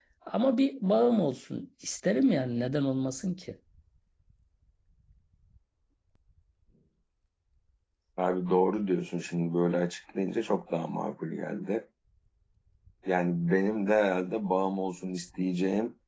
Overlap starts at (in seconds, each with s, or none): none